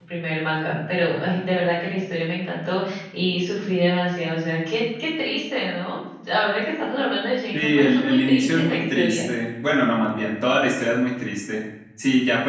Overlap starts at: 7.5 s

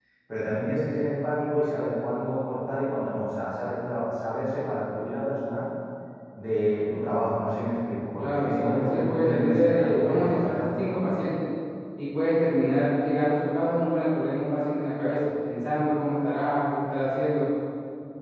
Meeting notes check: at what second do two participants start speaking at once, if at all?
8.2 s

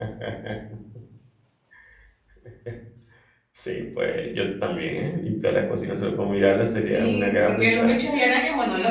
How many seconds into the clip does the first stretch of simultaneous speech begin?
6.8 s

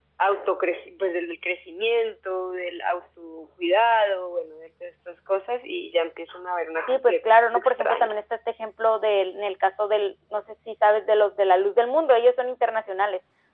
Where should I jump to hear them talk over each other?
6.9 s

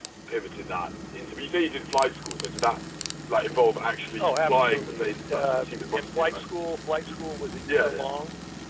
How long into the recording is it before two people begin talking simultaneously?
4.2 s

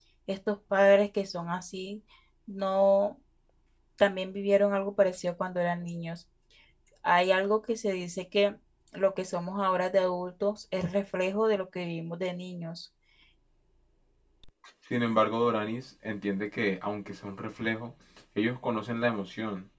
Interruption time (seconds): none

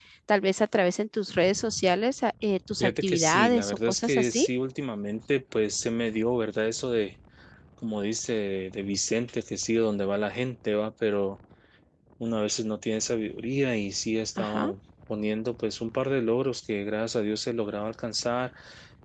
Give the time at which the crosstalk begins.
2.8 s

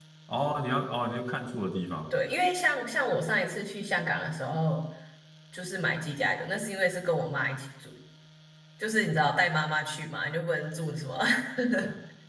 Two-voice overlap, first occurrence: none

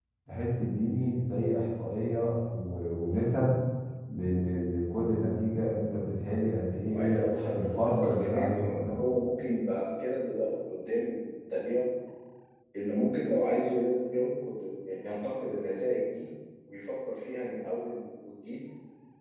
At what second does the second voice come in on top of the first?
6.9 s

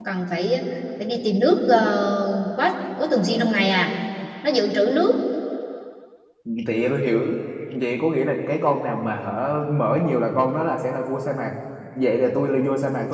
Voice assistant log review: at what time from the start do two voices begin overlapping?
none

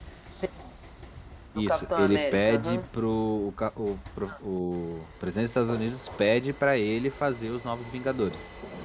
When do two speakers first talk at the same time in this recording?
1.6 s

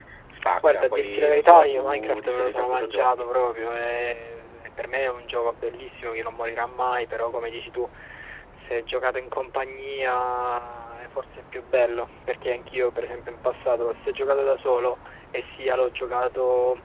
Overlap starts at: 0.7 s

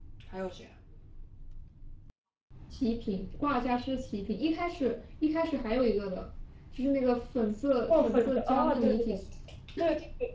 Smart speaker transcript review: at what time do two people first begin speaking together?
7.9 s

